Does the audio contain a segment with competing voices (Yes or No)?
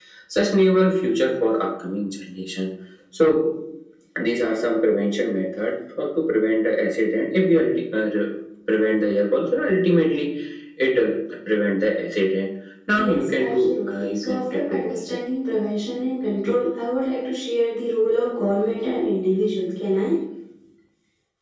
Yes